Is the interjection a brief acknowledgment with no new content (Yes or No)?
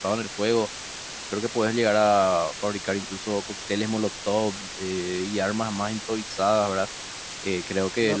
Yes